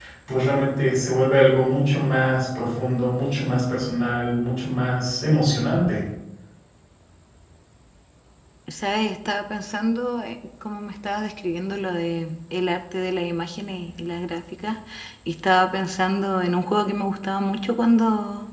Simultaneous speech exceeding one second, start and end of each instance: none

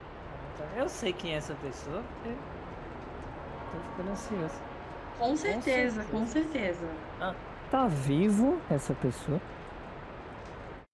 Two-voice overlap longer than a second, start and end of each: 5.4-6.7

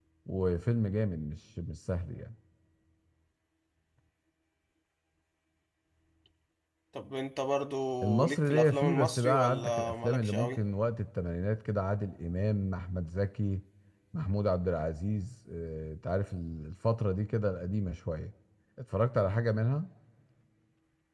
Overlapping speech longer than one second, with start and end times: 8.2-10.6

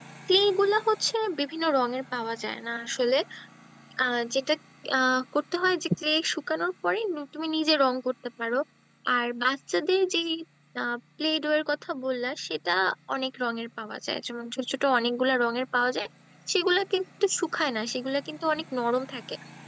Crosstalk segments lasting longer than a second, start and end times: none

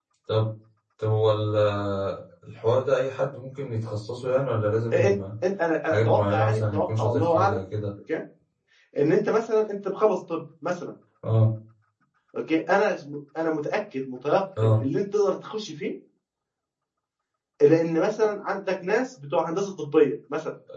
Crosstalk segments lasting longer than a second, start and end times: 5.9-7.6

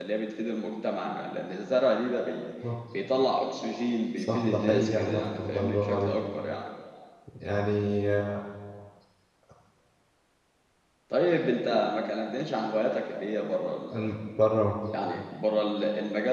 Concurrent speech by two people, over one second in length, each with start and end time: 4.2-6.2

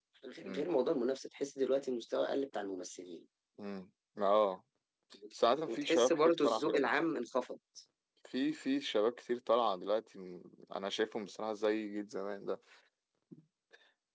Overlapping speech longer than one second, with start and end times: 5.7-6.9

